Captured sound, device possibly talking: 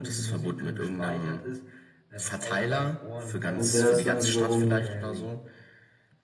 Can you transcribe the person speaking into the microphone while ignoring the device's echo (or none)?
Und der ist dann wiederum mit